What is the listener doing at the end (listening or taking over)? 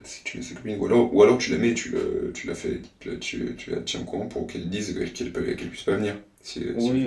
taking over